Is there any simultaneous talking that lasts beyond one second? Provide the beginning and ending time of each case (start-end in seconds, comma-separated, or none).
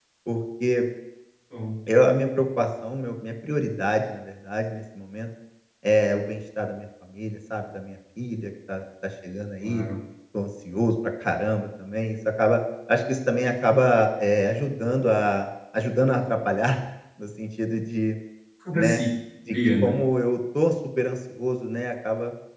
none